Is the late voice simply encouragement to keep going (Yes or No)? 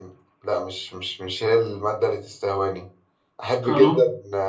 Yes